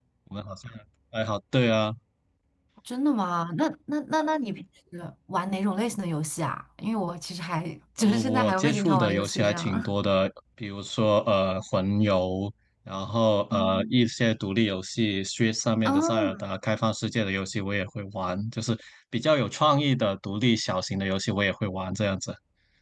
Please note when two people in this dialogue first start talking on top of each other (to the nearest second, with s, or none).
8 s